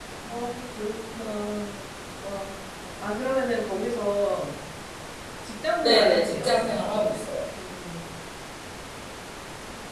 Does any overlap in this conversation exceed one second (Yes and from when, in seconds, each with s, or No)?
Yes, from 5.8 s